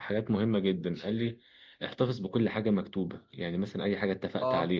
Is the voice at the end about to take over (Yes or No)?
No